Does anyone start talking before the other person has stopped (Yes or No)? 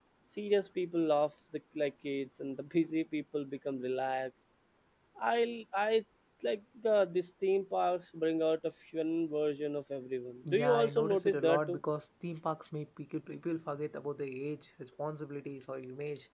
Yes